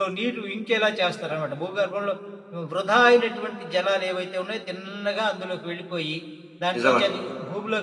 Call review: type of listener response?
listening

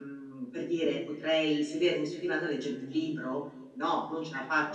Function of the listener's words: listening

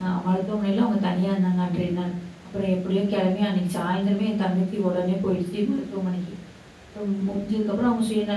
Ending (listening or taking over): listening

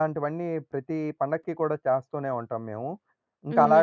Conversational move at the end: taking over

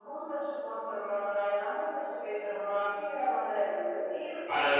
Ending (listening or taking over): taking over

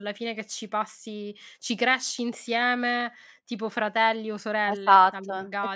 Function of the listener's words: taking over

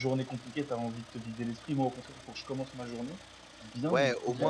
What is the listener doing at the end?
taking over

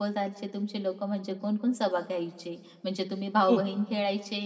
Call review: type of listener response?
listening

